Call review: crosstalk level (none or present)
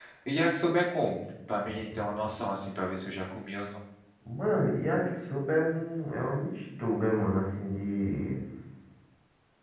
none